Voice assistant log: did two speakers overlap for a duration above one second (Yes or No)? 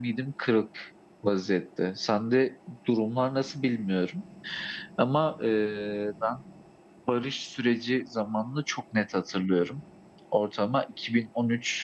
No